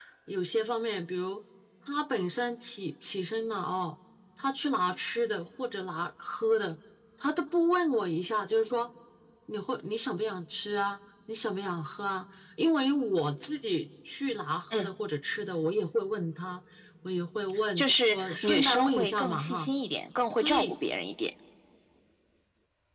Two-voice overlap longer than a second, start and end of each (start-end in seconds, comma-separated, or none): 17.8-19.7